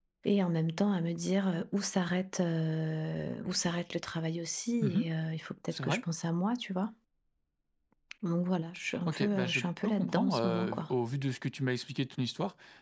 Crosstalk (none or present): present